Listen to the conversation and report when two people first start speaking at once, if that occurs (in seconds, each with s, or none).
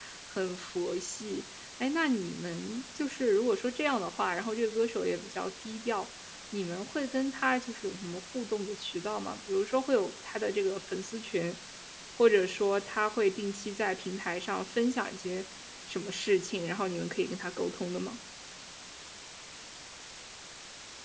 none